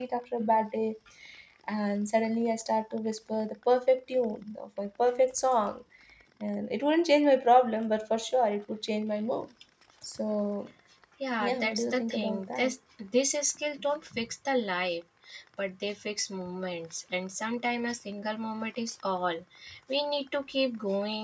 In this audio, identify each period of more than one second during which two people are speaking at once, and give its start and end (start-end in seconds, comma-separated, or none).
11.4-12.7